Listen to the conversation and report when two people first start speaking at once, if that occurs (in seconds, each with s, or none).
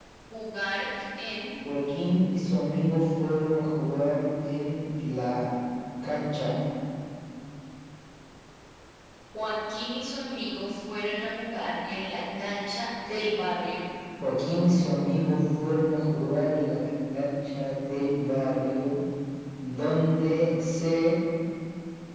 none